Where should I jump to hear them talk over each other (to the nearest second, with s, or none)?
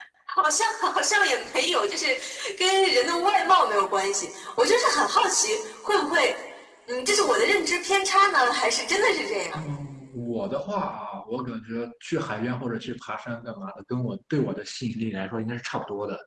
none